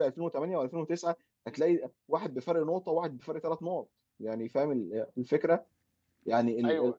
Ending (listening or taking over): listening